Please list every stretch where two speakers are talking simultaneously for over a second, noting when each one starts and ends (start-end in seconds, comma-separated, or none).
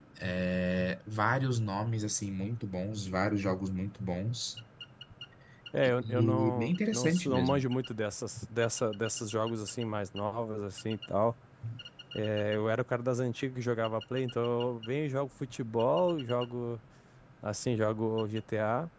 5.8-7.6